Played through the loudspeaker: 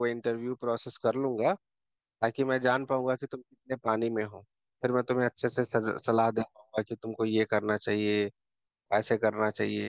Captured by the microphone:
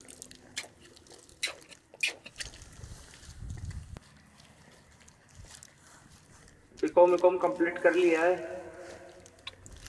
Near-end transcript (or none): बीकॉम बीकॉम कंप्लीट कर लिया है